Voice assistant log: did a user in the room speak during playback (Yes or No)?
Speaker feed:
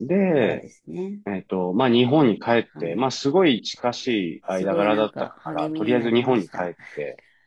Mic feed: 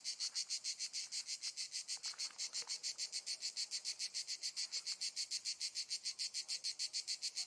No